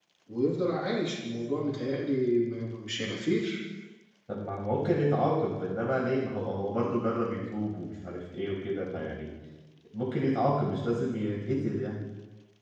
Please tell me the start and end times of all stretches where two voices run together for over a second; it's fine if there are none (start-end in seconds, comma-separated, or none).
none